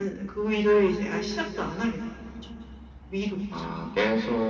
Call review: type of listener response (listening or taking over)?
taking over